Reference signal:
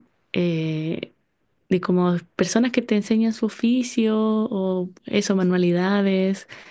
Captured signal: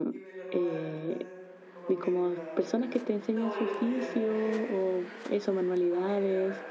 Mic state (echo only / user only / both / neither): both